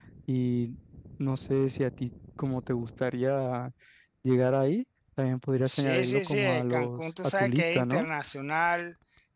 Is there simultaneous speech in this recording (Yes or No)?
Yes